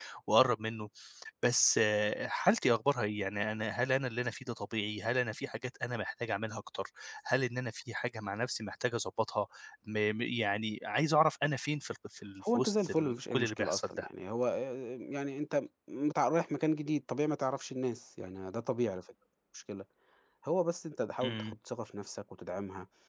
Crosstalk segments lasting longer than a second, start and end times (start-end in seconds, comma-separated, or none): 12.5-14.1